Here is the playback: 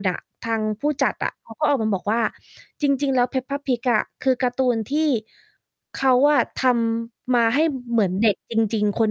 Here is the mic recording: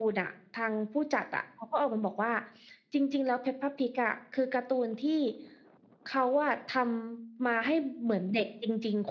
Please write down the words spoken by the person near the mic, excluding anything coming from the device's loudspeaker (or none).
none